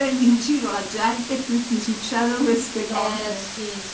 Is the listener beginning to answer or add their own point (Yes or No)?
Yes